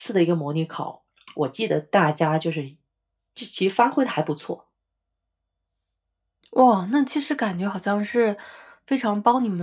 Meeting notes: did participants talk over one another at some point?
No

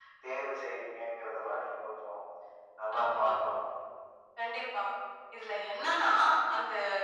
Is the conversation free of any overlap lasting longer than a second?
Yes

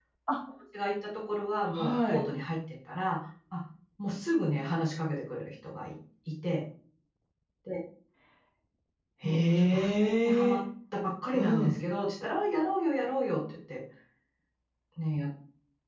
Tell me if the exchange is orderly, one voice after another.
No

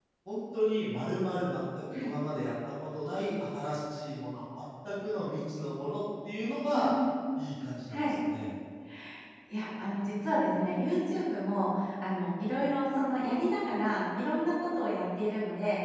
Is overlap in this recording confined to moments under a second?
Yes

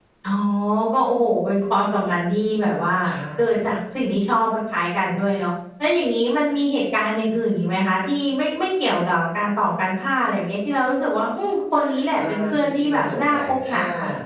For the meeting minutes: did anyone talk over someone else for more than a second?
Yes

